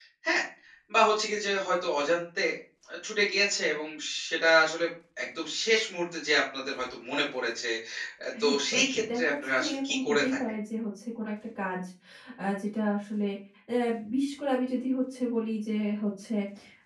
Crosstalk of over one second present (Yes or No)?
Yes